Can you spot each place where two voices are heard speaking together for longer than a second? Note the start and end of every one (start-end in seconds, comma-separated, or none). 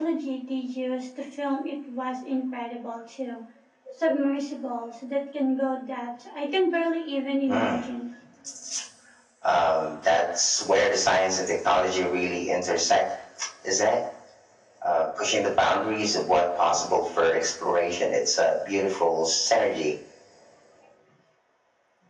none